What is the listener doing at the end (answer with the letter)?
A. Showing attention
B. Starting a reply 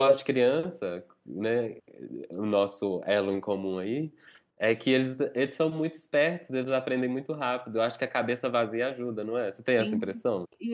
B